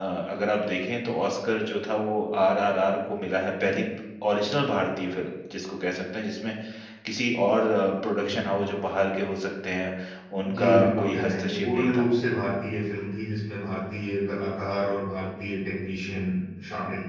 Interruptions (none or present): present